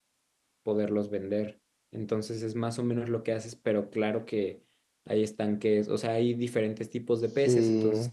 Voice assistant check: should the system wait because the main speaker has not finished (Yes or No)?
Yes